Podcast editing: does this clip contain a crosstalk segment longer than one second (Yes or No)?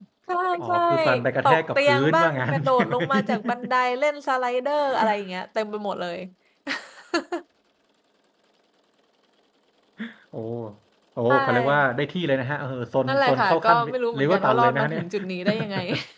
Yes